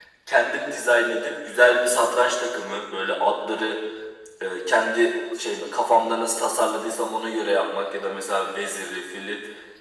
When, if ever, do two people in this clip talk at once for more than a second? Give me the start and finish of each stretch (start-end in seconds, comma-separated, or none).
none